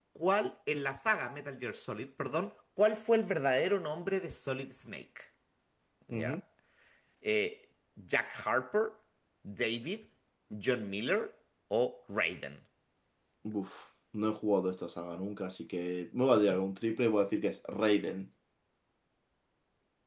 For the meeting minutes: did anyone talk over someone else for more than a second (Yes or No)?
No